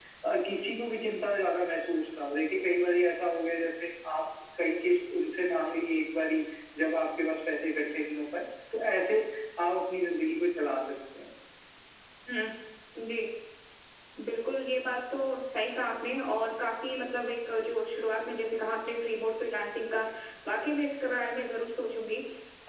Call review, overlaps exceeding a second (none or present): none